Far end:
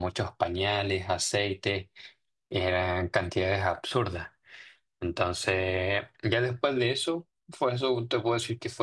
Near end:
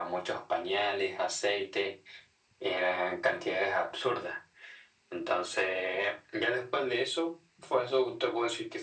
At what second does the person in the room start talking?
none

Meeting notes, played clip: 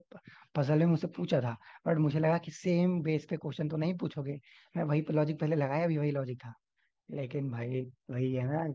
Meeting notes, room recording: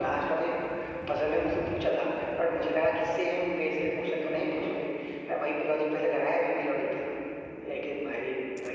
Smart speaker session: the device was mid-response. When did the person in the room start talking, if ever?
none

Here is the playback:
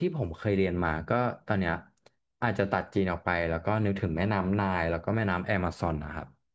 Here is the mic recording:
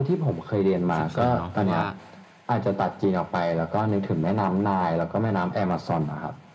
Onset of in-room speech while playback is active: 1 s

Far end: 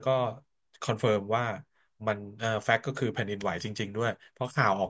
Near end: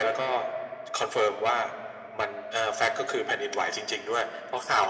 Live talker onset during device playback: none

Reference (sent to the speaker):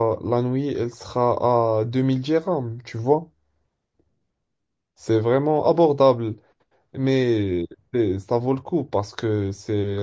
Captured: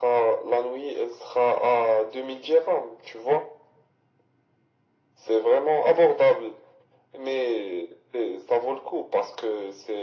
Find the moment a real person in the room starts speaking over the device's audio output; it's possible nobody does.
none

